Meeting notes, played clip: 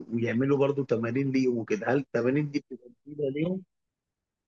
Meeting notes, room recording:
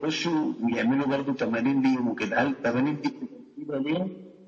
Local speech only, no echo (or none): none